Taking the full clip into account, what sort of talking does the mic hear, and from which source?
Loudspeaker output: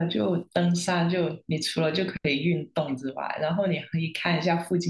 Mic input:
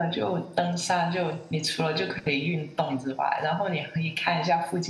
echo only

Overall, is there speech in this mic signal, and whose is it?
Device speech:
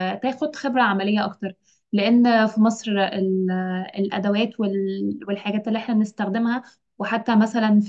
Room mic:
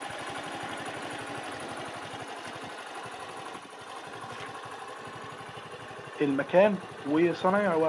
user only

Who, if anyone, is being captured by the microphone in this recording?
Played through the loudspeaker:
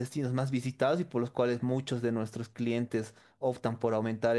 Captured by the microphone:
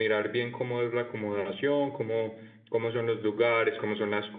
user only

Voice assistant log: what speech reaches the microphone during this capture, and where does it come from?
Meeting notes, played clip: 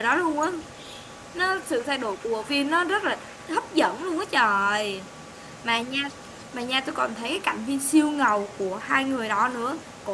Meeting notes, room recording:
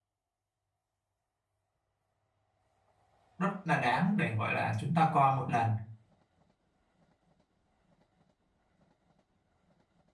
user only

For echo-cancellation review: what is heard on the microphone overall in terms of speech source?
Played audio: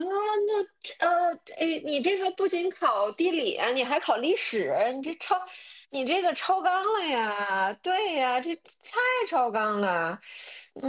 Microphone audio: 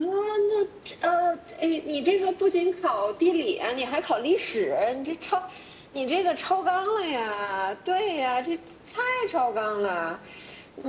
echo only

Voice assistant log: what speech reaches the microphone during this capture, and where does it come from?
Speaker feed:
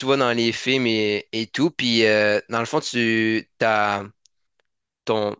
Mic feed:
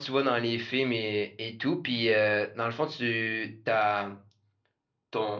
echo only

